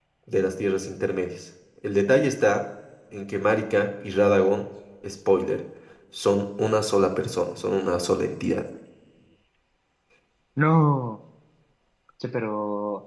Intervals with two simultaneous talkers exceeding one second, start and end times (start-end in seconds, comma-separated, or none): none